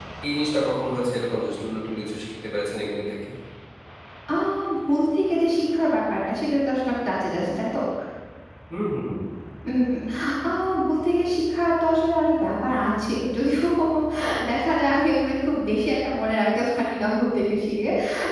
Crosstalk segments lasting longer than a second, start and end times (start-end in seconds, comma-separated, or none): none